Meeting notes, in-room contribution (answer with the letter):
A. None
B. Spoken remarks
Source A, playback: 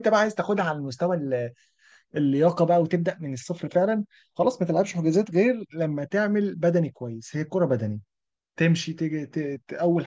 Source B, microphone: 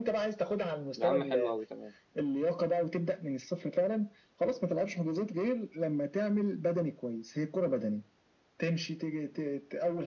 B